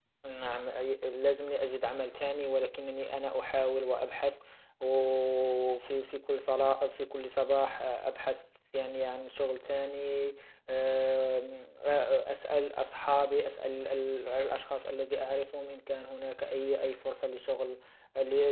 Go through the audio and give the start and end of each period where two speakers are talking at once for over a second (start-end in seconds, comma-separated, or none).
none